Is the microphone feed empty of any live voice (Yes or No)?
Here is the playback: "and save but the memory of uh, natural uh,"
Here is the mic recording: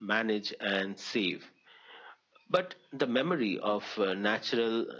Yes